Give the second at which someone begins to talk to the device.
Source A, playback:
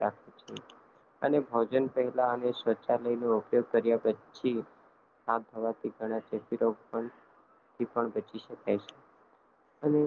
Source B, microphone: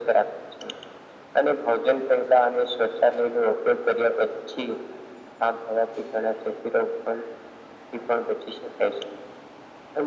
none

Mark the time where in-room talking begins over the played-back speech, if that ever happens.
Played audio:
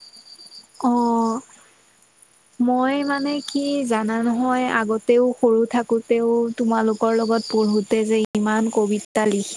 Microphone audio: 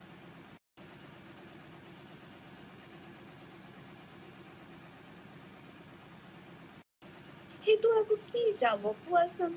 8 s

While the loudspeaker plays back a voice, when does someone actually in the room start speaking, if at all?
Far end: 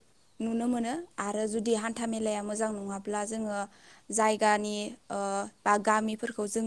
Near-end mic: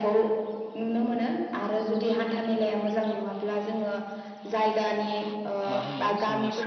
6 s

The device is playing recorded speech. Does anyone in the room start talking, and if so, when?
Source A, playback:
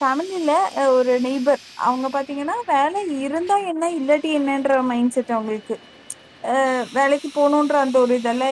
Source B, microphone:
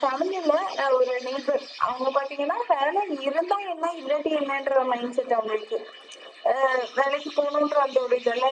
none

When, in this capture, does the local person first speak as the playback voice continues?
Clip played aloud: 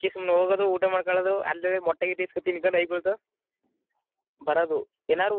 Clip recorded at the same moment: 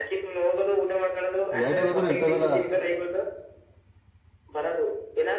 2 s

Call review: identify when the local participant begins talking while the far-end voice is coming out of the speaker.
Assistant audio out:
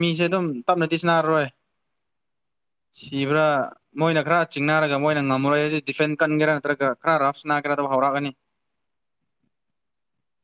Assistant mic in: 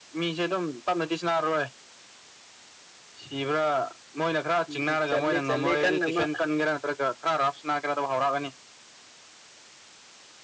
5 s

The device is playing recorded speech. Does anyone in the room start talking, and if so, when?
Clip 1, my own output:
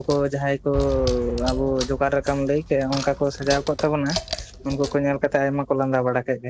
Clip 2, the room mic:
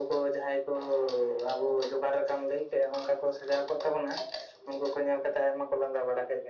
none

